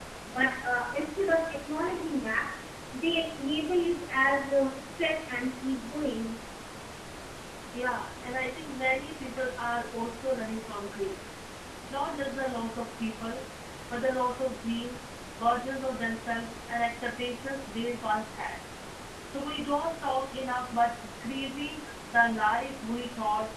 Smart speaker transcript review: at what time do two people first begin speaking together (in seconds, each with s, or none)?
none